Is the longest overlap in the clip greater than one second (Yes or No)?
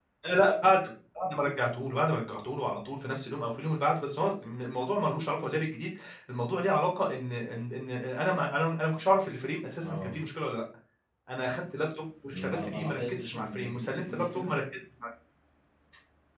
Yes